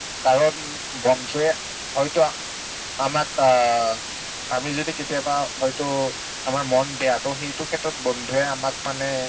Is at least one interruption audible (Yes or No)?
No